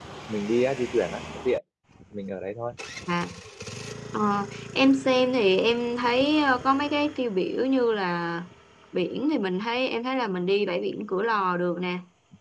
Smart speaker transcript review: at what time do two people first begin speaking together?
none

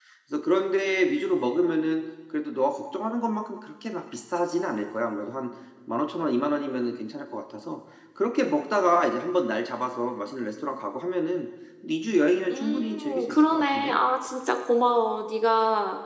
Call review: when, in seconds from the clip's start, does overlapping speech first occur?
12.5 s

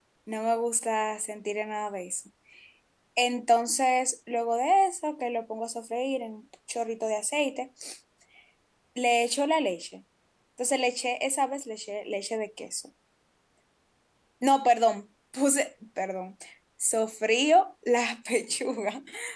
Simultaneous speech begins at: none

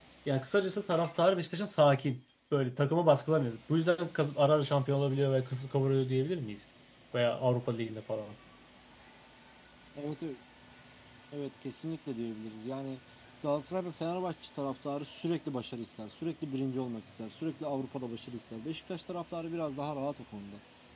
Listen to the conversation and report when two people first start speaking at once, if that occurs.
none

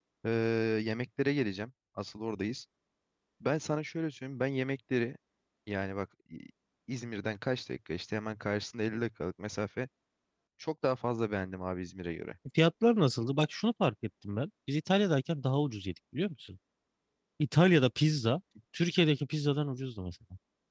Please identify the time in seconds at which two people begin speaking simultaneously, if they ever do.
none

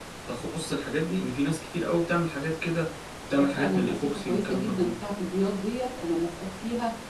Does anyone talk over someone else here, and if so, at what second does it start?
3.4 s

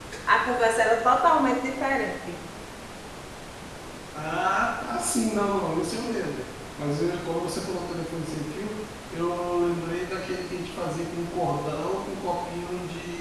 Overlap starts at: none

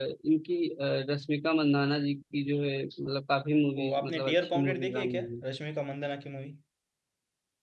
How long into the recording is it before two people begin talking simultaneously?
3.8 s

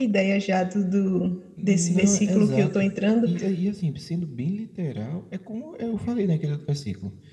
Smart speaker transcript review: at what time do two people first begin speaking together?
1.6 s

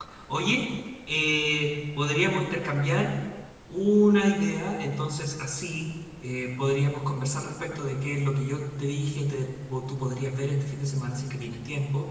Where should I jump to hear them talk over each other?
none

